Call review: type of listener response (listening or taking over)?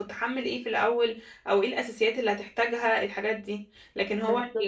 listening